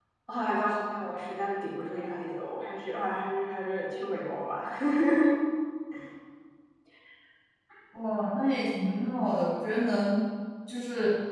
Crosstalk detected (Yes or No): No